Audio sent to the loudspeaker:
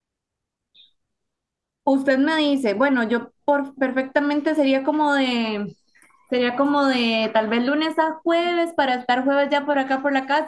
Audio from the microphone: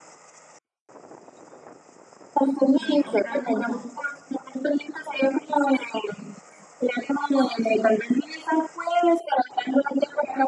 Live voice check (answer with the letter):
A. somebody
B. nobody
A